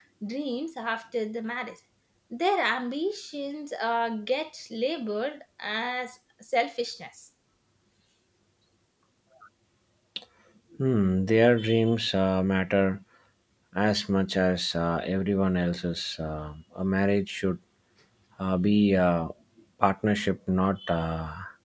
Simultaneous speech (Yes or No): No